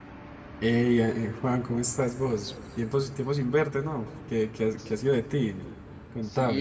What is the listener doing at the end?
taking over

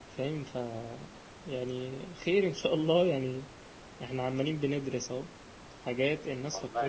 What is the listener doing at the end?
listening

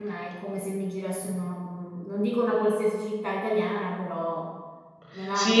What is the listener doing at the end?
taking over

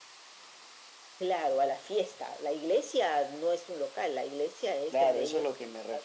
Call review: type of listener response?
taking over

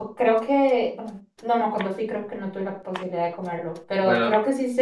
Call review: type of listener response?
listening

